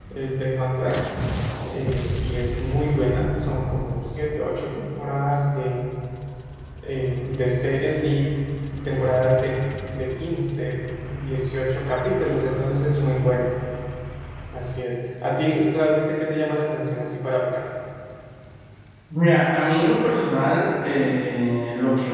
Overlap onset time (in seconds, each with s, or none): none